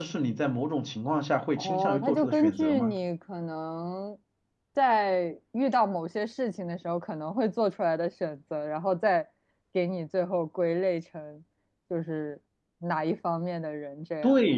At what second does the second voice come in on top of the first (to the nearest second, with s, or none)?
2 s